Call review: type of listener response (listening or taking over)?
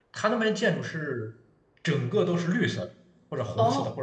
taking over